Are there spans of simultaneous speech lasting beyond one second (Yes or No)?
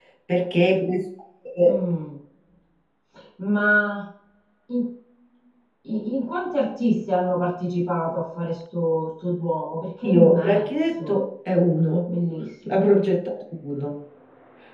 Yes